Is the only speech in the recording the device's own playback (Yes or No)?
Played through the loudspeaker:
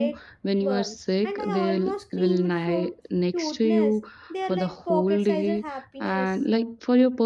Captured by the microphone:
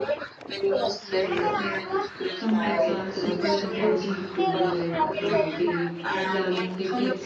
No